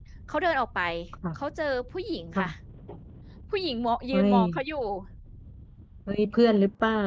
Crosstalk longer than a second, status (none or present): none